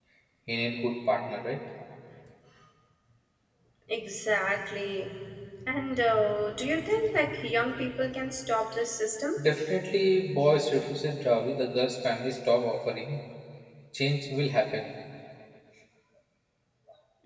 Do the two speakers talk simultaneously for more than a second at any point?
No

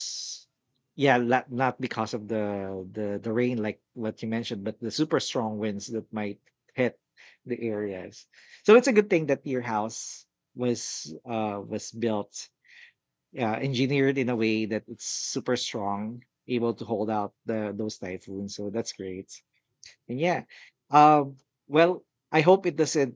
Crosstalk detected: No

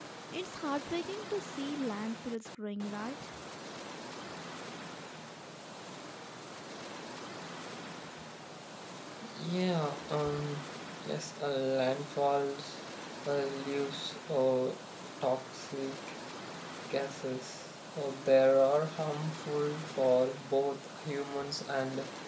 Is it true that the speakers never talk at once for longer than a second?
Yes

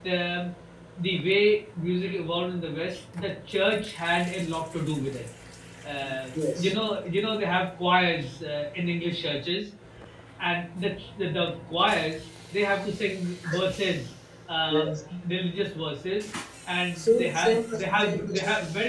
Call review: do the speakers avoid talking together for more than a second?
No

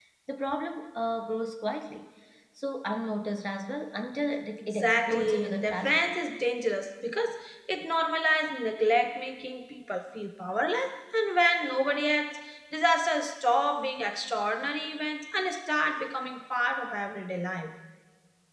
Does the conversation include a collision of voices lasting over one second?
Yes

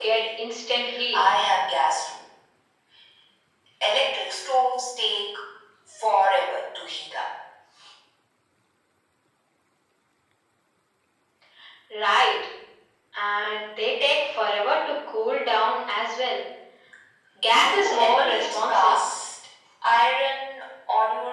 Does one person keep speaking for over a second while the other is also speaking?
Yes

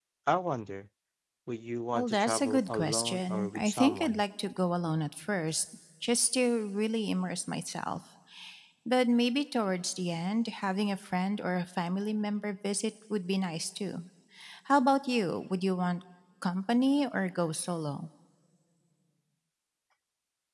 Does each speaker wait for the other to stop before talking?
No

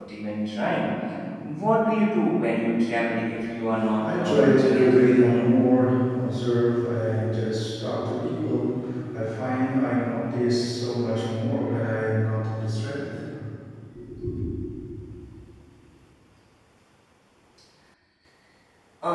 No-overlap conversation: No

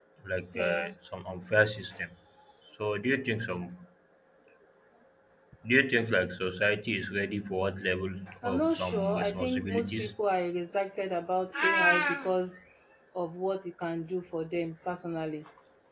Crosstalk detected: Yes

